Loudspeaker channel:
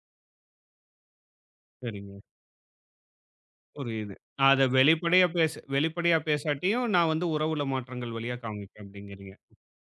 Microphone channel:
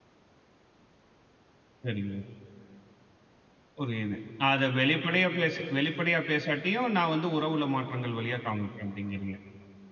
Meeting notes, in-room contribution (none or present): none